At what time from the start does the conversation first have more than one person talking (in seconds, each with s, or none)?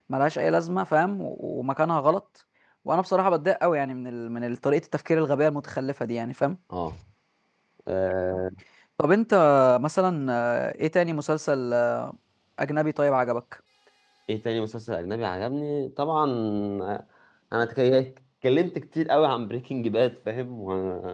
none